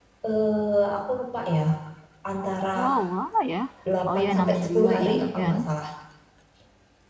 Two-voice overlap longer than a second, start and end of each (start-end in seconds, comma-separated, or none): 4.1-5.6